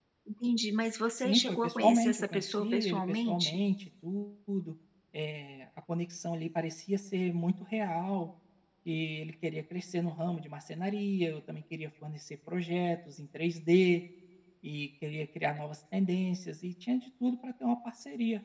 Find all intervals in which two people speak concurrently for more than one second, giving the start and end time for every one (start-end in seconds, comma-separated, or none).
1.1-3.6